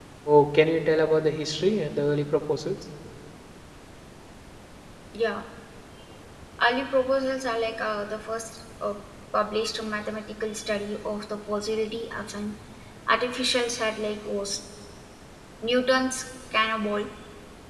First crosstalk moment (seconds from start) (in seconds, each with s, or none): none